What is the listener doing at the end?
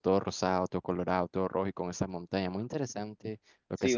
taking over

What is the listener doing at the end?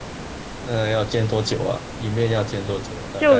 taking over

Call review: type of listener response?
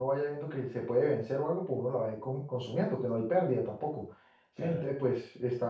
listening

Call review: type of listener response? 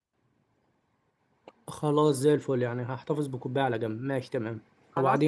taking over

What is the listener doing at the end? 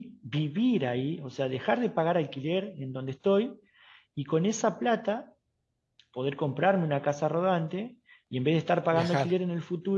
listening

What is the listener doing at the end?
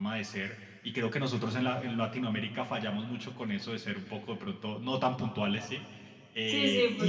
taking over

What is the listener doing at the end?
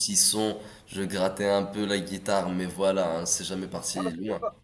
taking over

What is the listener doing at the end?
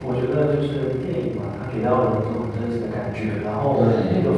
listening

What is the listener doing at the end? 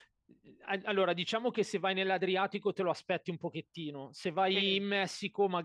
listening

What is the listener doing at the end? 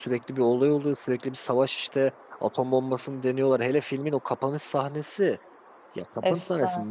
listening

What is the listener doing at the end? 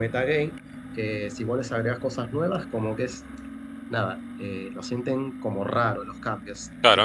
taking over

